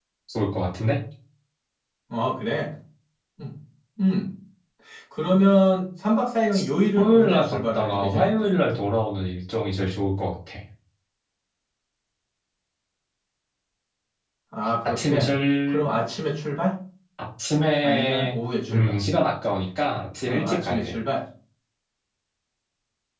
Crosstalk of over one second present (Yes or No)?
Yes